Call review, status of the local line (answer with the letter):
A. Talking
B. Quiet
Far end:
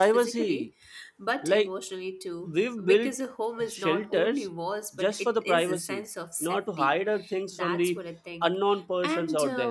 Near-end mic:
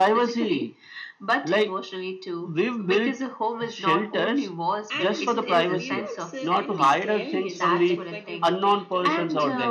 A